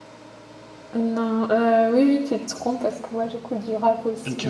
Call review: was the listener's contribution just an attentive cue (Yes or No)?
No